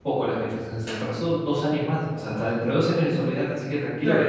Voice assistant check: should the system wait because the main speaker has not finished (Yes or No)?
No